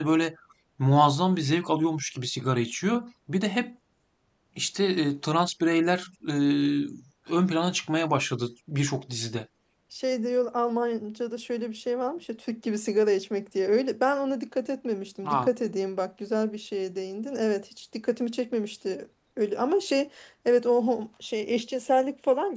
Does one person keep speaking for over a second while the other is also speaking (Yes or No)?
No